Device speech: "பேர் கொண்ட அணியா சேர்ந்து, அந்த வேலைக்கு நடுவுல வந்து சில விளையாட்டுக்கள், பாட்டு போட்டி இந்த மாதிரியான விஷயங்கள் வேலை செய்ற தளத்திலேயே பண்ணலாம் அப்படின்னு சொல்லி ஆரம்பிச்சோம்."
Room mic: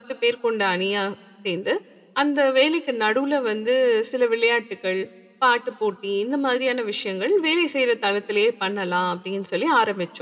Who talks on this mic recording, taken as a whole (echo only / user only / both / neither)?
echo only